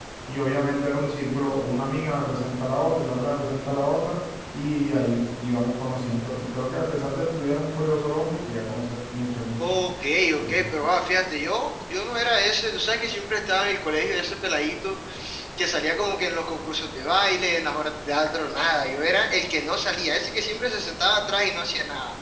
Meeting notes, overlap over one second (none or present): none